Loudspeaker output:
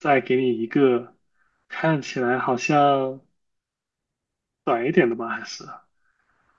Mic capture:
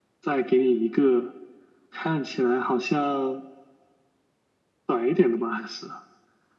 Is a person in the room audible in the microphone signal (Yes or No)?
No